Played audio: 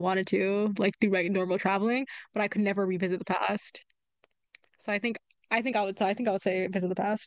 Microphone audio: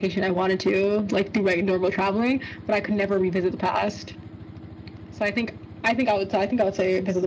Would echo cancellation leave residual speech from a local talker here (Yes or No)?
No